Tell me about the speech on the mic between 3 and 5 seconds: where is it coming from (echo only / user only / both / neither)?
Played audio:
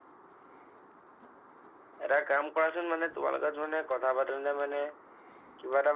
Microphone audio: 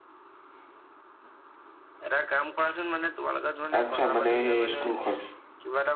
both